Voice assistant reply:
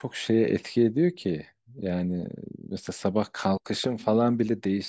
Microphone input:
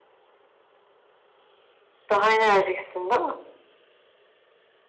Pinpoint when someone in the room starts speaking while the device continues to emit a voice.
2.1 s

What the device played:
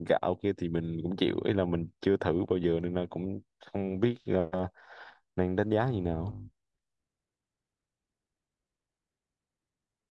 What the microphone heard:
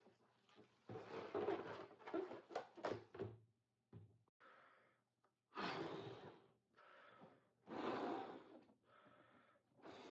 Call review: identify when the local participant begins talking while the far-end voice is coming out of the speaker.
none

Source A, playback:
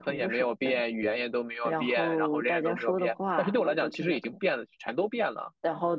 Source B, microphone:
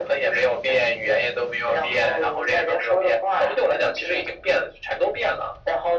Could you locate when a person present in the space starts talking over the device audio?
none

